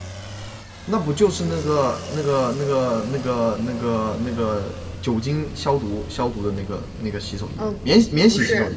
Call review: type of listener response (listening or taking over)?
taking over